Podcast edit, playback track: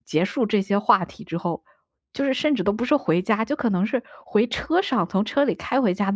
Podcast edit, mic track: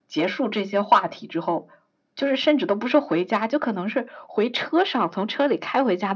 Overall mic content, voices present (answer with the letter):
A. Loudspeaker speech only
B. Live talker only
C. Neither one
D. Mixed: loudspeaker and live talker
A